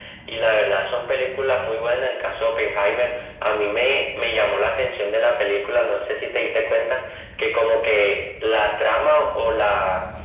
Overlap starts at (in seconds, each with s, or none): none